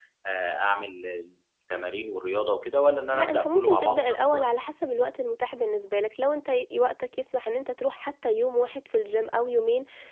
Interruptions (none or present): present